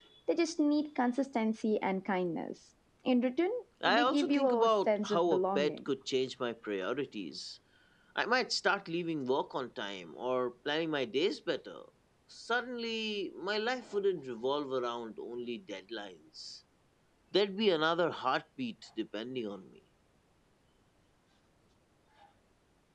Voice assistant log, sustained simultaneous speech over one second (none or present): present